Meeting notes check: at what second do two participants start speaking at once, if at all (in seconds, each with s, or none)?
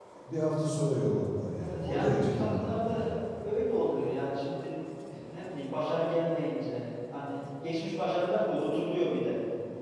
1.6 s